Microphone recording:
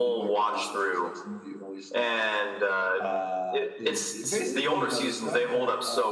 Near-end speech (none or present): present